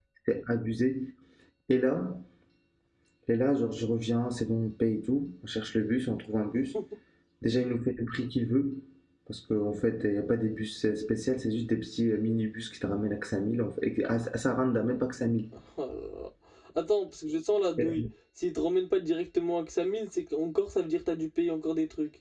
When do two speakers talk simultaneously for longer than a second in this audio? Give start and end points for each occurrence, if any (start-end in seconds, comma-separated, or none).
none